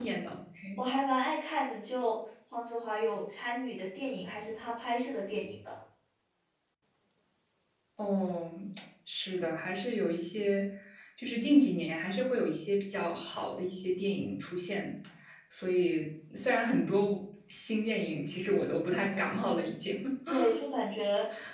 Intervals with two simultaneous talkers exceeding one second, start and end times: none

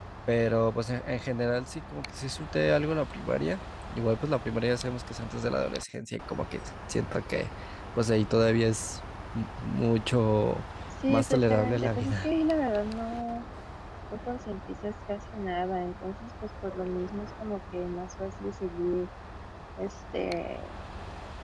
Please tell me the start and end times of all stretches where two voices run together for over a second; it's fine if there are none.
11.1-12.3

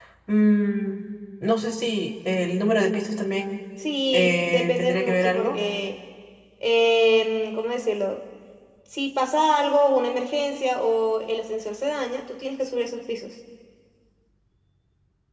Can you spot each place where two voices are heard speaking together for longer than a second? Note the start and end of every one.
4.1-5.6

